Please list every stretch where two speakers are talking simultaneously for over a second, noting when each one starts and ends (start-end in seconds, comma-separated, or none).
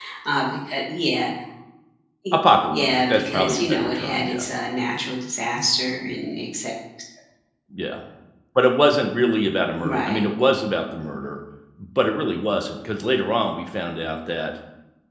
2.3-4.5